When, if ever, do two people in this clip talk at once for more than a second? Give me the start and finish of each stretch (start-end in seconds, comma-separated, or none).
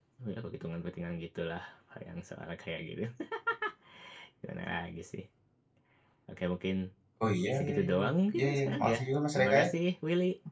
8.5-9.7